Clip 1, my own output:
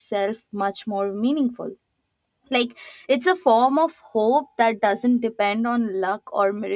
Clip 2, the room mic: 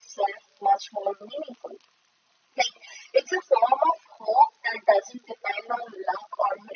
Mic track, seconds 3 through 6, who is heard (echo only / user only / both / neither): echo only